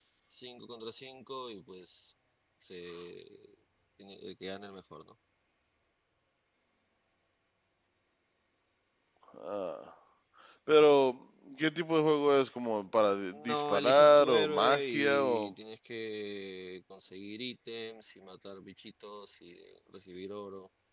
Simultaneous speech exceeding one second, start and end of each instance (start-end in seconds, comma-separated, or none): 13.5-15.5